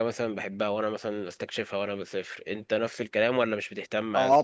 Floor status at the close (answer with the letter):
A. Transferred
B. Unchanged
A